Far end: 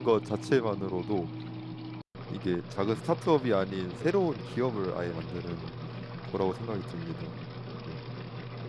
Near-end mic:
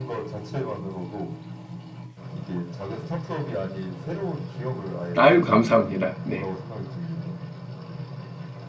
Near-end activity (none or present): present